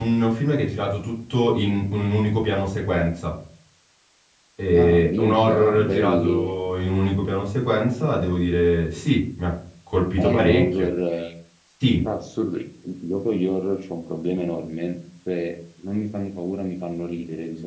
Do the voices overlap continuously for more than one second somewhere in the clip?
Yes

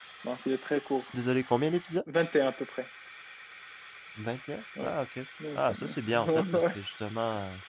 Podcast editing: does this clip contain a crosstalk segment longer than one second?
Yes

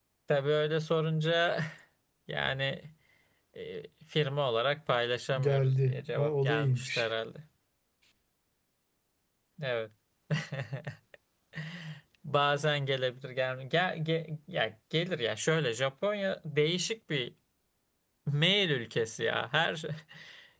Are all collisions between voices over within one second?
No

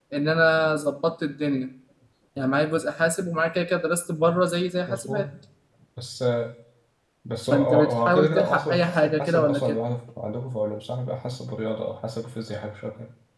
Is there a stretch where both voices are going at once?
Yes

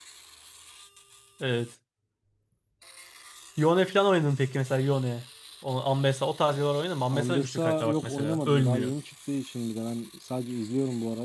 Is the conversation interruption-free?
No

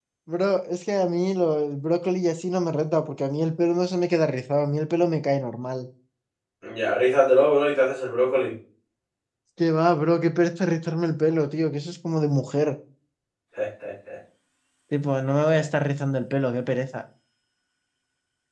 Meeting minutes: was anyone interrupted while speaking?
No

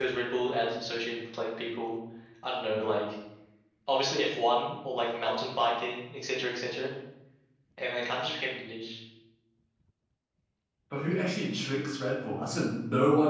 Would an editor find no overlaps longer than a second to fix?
Yes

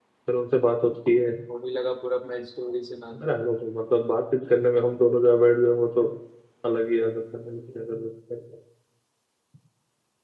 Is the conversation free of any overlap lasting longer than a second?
Yes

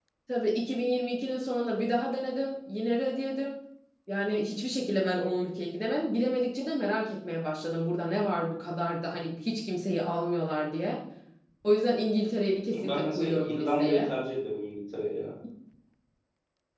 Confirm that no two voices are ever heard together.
No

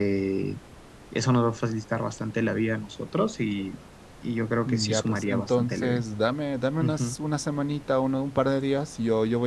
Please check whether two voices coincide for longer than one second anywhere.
Yes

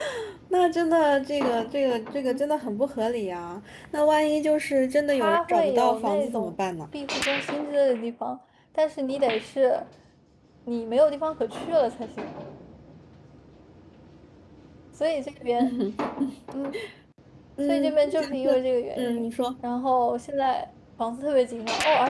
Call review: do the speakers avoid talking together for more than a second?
No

